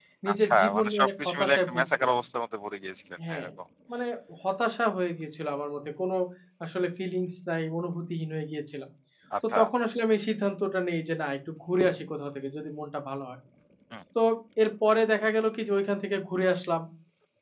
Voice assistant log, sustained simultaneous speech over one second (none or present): present